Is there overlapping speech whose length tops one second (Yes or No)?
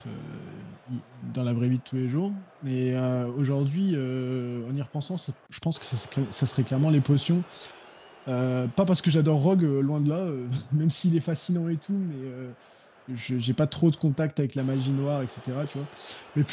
No